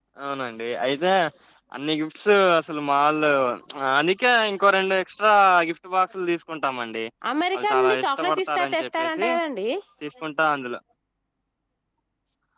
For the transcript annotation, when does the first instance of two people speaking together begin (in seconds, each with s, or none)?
7.6 s